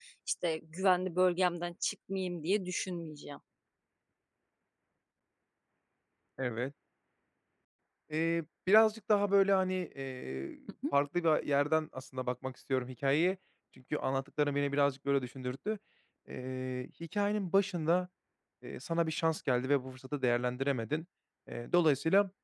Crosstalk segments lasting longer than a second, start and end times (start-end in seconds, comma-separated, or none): none